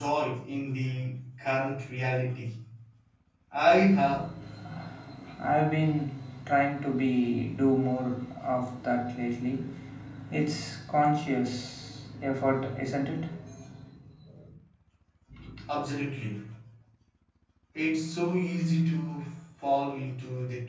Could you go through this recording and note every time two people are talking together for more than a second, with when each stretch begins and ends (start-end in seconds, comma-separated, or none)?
none